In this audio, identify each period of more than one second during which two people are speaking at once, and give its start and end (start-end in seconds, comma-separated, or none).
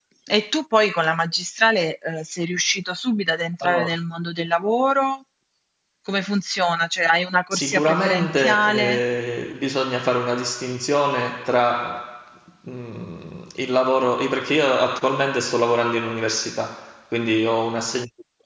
7.5-9.0